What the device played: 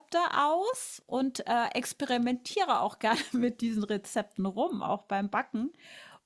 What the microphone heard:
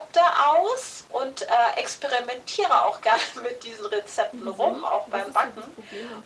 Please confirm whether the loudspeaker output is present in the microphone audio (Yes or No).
Yes